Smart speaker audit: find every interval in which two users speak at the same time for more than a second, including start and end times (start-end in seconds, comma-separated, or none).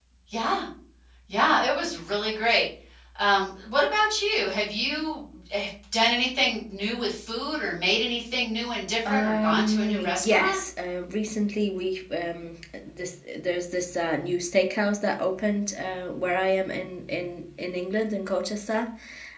9.1-10.6